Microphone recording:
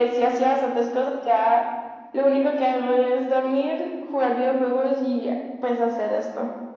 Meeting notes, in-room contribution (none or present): none